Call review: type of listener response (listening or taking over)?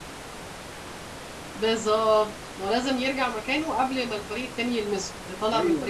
taking over